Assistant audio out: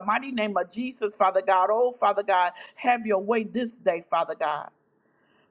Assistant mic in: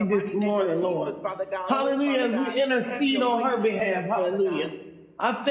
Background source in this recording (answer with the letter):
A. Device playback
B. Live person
A